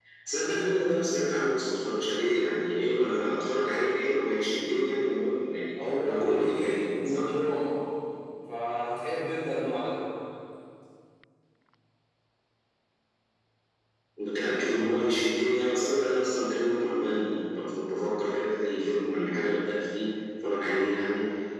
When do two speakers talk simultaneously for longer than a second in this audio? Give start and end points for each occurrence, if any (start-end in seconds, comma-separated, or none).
6.0-7.3